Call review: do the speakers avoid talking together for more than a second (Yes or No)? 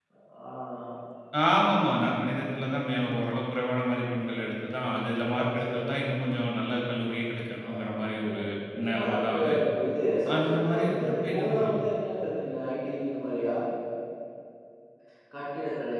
No